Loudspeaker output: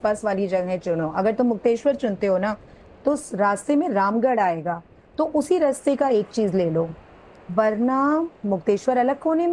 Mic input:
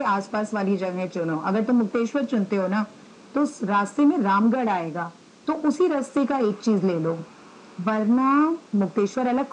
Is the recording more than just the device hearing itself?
No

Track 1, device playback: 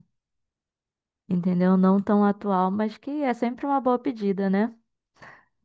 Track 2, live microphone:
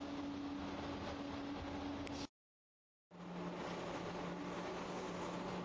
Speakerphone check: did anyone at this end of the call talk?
No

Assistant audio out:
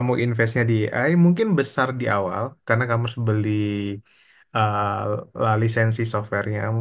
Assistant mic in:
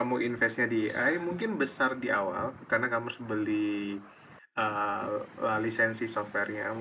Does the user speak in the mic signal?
No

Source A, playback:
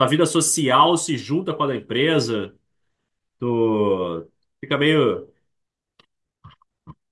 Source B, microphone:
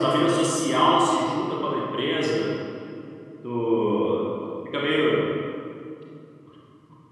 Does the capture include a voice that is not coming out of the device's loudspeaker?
No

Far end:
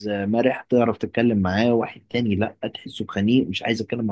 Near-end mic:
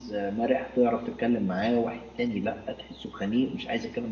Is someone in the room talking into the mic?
No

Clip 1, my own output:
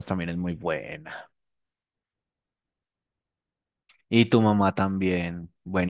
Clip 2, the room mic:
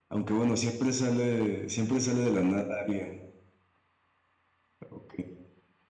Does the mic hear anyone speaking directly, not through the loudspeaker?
Yes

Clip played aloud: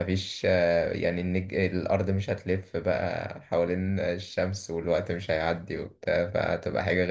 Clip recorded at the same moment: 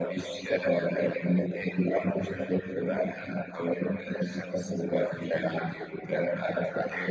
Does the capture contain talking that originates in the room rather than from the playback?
No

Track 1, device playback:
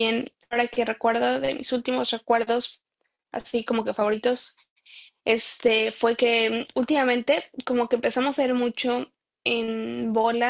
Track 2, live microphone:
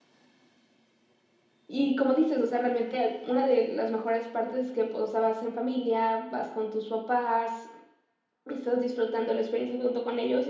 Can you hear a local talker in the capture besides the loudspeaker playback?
Yes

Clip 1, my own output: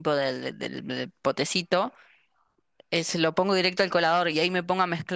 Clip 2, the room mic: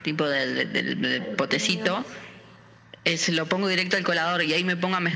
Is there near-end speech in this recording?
Yes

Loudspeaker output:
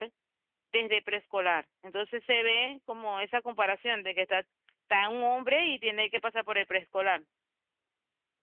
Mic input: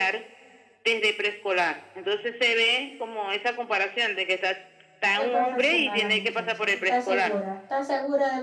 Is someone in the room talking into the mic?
Yes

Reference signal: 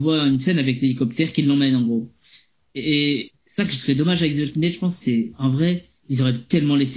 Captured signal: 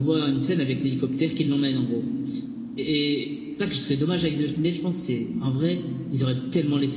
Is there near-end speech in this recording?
No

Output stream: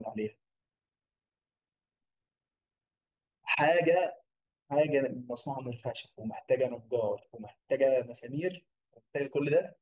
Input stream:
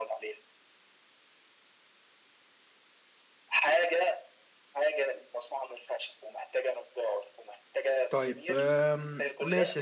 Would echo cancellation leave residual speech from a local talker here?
Yes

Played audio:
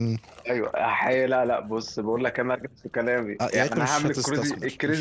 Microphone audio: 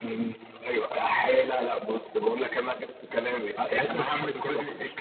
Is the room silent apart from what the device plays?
Yes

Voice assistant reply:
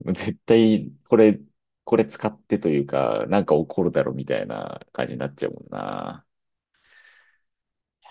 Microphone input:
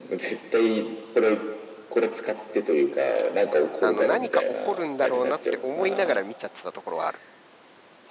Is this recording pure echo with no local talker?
No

